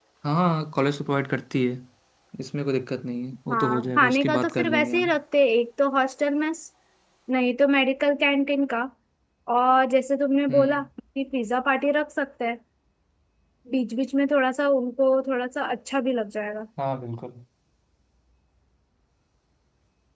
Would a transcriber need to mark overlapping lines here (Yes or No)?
Yes